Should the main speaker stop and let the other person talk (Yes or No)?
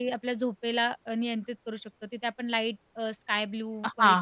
Yes